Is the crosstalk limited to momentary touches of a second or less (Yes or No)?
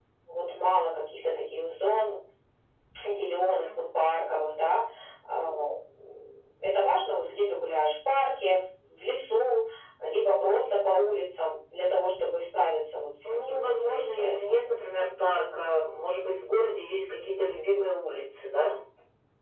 No